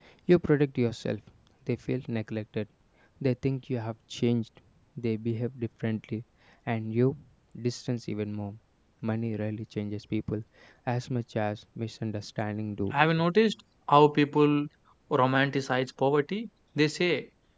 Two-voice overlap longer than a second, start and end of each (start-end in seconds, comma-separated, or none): none